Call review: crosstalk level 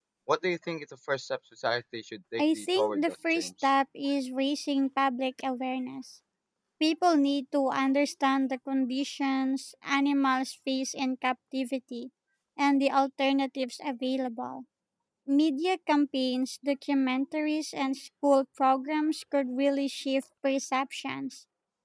present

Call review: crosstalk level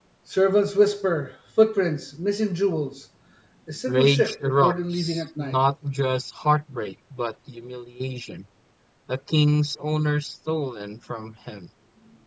present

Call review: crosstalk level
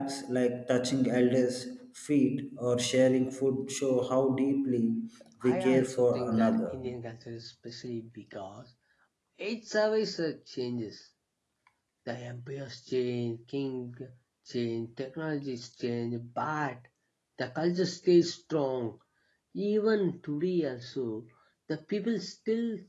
present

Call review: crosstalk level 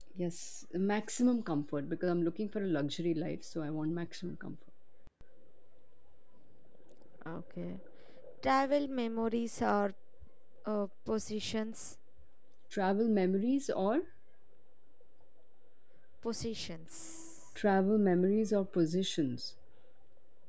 none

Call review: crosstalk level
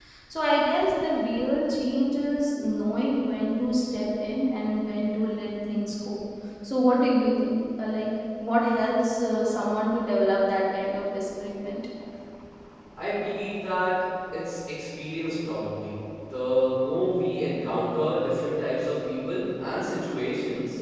none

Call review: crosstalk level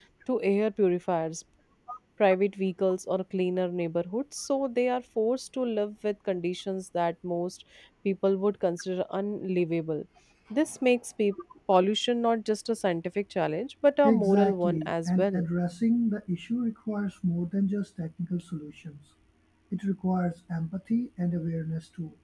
present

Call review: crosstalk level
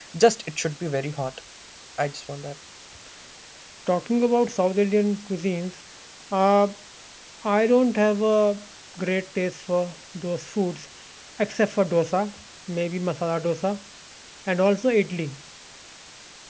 none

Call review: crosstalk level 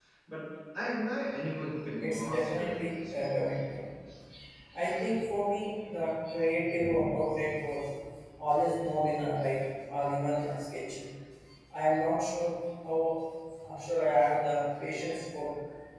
present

